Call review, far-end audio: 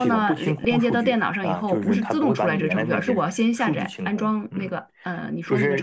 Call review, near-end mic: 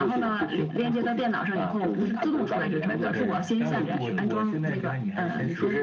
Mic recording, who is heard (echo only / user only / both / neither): both